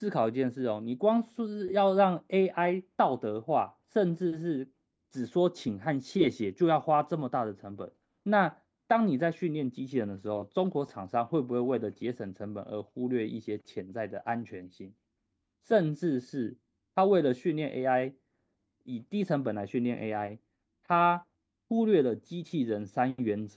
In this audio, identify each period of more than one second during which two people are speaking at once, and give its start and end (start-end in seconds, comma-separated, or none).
none